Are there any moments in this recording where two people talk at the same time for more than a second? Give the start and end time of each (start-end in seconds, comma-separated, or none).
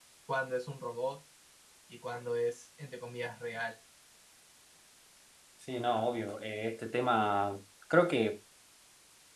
none